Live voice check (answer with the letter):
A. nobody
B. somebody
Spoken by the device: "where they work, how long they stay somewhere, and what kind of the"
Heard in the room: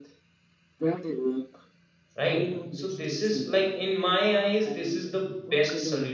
B